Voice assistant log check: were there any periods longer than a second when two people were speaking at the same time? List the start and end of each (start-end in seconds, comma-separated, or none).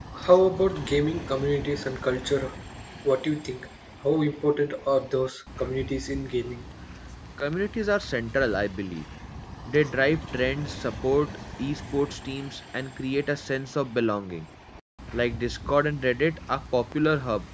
none